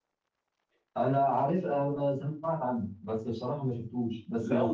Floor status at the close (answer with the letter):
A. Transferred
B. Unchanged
A